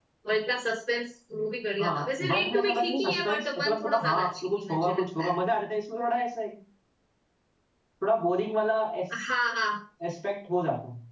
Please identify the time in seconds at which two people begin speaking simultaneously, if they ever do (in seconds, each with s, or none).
1.8 s